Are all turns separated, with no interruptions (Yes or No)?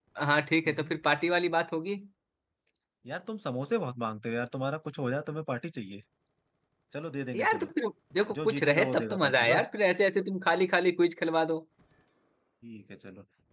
No